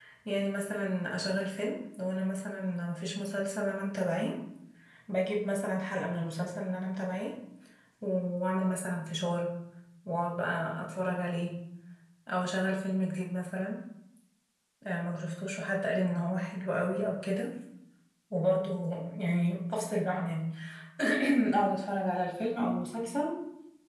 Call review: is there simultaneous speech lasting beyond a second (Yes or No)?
No